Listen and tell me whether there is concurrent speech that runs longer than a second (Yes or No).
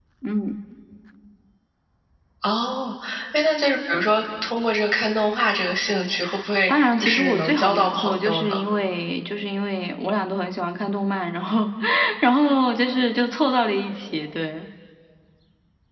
Yes